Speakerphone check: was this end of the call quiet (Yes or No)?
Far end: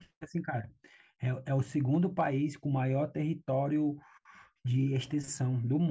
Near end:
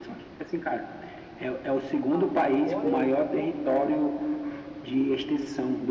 No